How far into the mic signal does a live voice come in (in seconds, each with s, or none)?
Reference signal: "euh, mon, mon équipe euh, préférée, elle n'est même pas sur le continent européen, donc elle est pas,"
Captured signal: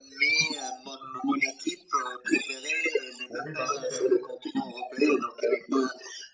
3.3 s